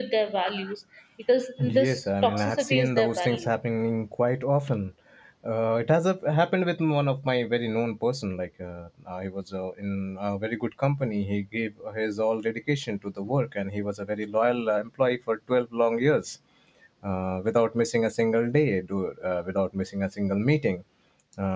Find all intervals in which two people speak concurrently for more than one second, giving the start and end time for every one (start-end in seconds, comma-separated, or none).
1.6-3.5